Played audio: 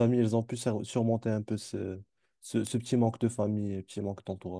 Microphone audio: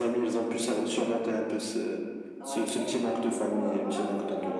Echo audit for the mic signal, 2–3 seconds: both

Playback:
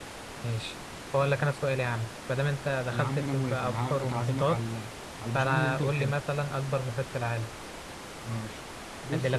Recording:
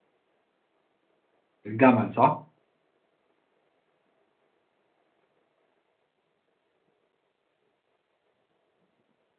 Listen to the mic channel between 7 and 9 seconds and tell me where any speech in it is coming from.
neither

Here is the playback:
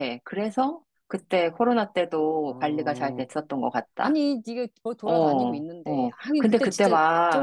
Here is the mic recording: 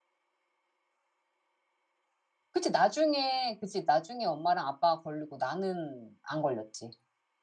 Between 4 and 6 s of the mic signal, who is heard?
user only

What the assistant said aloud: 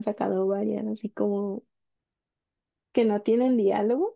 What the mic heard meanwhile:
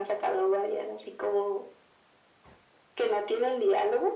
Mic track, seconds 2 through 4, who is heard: echo only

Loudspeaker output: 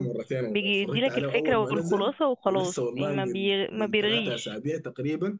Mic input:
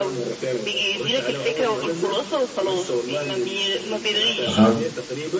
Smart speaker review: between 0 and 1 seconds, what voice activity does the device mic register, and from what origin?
echo only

